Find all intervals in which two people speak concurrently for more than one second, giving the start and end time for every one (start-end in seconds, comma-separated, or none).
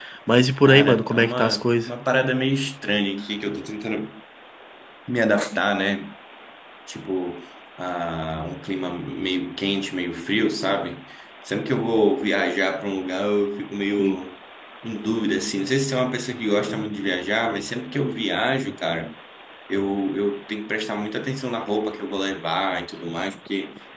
0.7-1.9